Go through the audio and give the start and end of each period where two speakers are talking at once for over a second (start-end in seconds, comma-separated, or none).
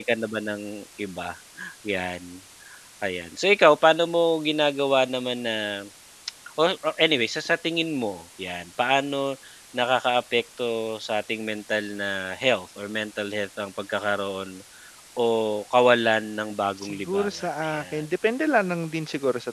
16.8-18.0